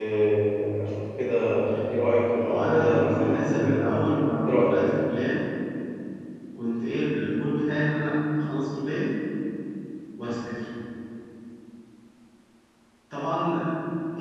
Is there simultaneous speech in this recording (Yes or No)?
Yes